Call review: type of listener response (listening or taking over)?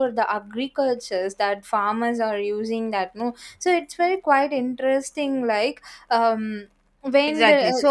taking over